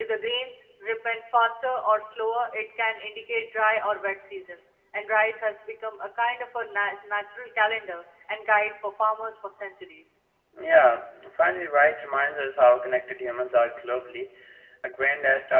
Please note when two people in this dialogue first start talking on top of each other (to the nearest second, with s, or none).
none